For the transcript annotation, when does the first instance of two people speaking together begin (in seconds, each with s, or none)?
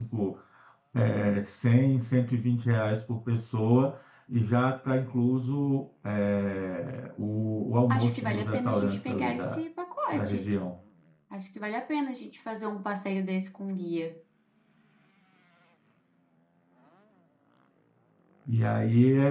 7.9 s